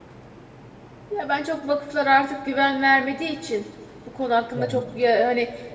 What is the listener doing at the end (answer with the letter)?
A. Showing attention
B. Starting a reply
A